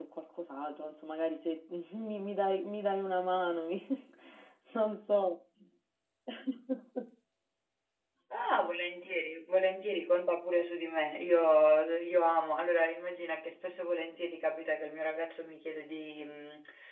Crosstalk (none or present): none